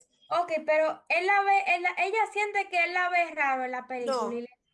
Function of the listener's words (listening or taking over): taking over